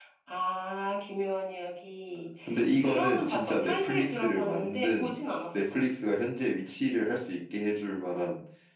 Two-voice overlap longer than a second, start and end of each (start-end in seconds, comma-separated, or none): 2.8-5.1